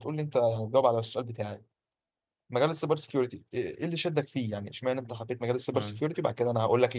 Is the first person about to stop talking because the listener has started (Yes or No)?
No